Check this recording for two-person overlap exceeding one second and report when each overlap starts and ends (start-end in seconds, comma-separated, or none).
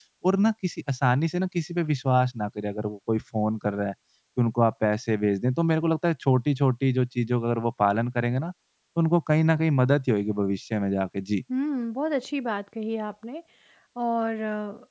none